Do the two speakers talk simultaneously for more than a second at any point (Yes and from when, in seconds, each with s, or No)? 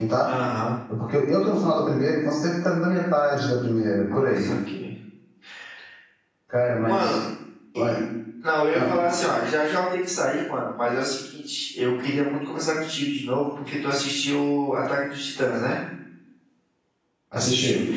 No